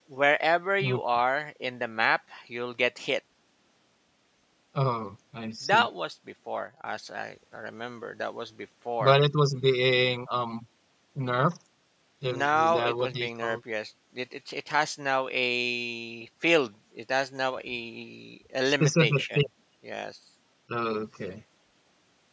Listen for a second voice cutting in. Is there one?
Yes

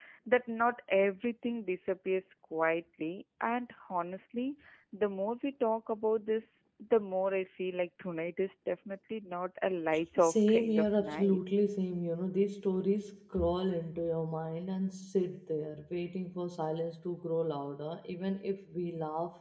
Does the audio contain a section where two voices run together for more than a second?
Yes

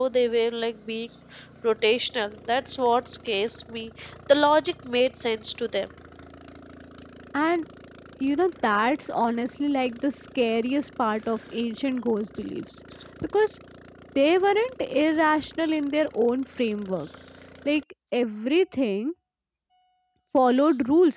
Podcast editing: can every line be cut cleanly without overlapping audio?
Yes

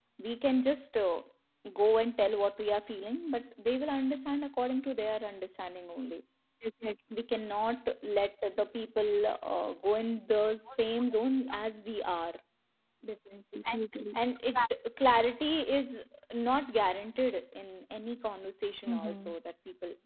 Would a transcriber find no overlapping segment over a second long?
Yes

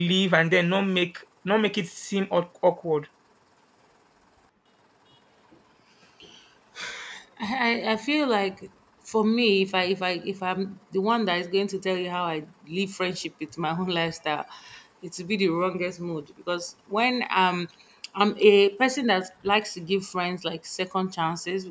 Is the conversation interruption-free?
Yes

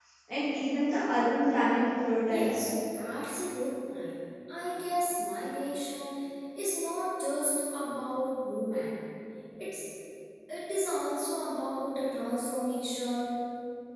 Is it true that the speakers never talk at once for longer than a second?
Yes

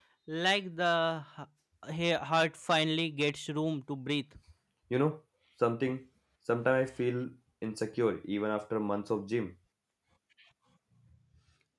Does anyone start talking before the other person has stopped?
No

